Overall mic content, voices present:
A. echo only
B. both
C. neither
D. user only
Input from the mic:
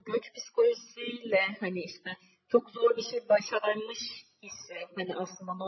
A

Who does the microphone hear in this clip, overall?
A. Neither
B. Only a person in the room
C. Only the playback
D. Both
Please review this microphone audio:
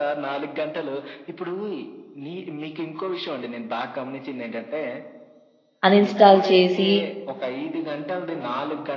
D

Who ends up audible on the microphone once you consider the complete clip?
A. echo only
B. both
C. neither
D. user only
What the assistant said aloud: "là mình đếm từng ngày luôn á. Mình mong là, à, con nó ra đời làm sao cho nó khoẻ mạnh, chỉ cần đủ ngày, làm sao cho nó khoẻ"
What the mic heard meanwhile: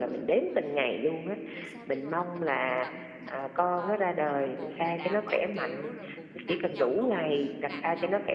B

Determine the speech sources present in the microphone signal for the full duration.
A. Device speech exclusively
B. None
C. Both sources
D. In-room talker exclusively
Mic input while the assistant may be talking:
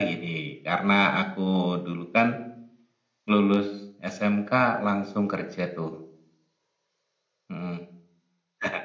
A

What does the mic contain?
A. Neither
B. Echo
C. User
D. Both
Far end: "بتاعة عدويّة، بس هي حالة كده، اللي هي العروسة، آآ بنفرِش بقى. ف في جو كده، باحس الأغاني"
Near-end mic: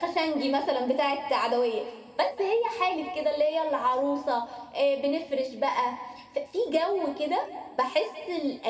B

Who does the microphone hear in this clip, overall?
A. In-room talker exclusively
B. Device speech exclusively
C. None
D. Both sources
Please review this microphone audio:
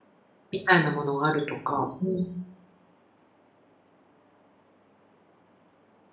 A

